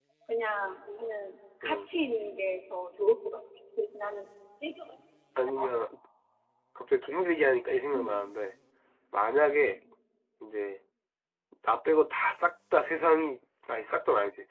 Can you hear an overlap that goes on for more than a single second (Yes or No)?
No